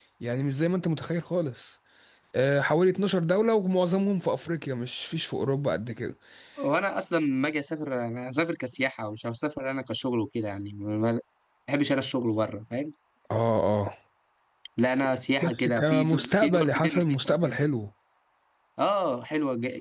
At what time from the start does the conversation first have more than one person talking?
15 s

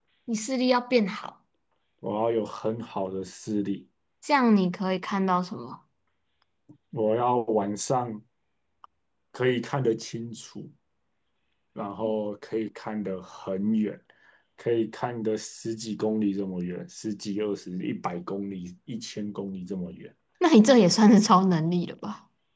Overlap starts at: none

